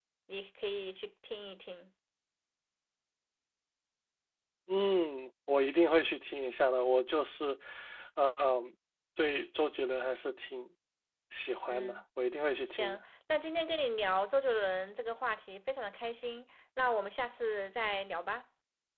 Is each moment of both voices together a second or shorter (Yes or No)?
Yes